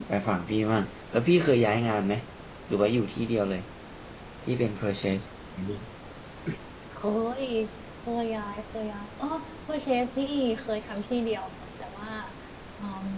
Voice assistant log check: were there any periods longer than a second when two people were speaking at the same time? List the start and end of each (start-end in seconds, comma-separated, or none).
none